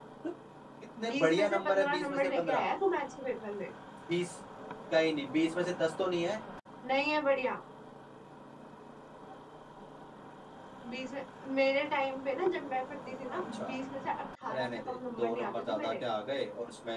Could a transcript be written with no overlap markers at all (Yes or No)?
No